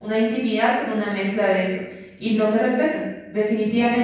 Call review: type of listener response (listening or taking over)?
listening